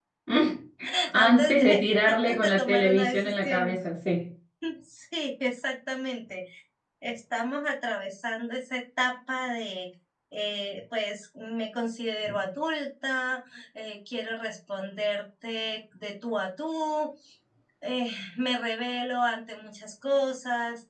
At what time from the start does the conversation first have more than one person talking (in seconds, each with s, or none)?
1.1 s